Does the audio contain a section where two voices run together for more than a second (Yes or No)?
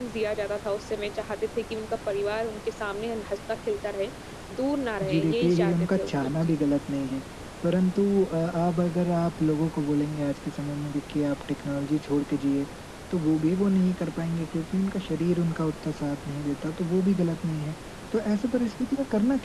Yes